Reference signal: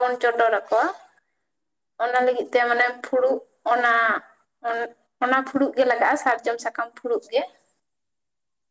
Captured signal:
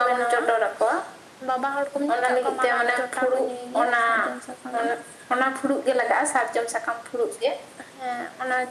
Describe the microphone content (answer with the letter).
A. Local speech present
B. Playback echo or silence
A